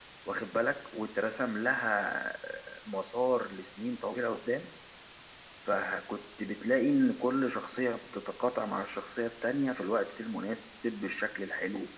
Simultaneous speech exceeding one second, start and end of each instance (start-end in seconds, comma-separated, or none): none